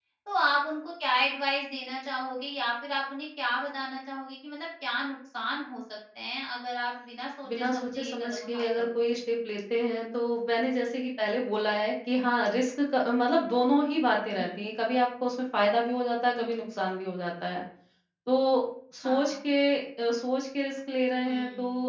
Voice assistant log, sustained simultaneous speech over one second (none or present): present